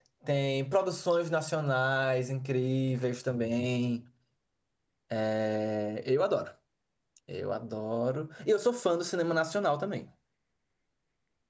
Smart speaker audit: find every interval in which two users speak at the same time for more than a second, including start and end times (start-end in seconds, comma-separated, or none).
none